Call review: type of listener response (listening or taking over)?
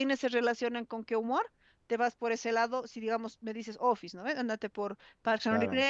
listening